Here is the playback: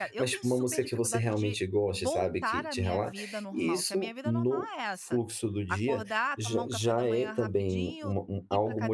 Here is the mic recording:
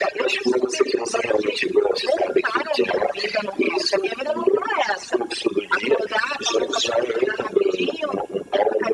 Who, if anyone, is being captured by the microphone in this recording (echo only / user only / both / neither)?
echo only